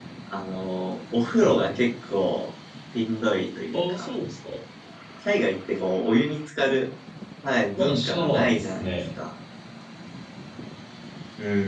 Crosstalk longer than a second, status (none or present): present